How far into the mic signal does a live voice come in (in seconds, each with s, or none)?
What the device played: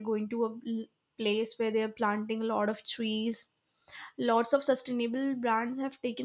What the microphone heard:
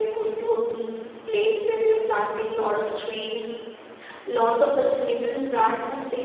none